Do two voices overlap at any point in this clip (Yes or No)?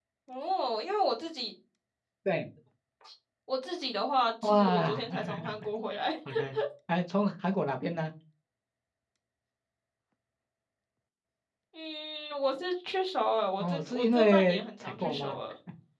Yes